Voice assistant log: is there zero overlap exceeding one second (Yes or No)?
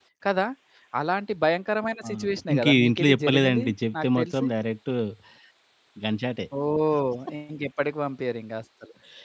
No